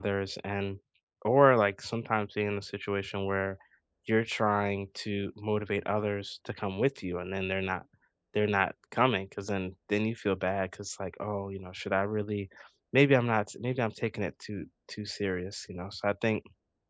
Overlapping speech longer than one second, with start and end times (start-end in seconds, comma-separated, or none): none